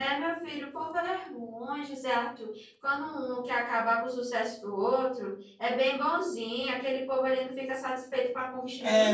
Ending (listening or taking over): taking over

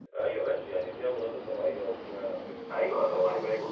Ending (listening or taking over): taking over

